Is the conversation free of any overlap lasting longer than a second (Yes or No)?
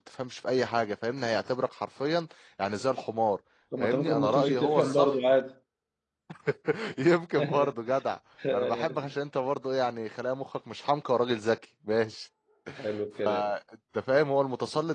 No